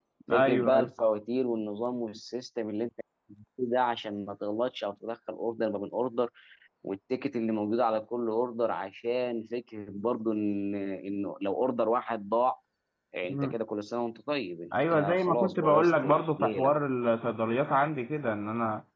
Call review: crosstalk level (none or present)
present